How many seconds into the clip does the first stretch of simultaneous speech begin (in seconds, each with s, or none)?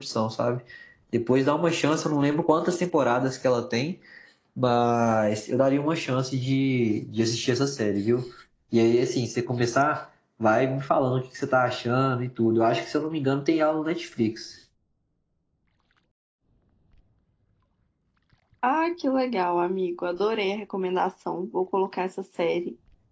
none